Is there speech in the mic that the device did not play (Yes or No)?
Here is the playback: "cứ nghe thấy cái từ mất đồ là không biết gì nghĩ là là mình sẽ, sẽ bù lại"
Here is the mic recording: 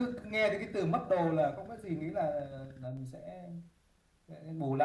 No